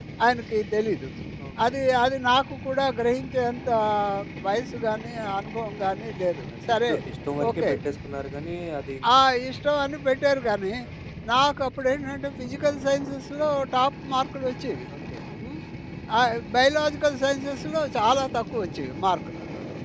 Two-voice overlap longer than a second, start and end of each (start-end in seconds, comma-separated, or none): none